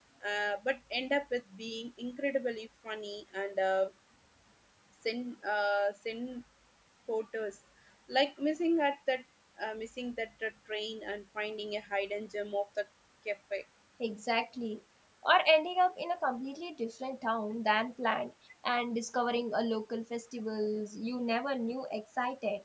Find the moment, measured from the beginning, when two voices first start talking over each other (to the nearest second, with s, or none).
none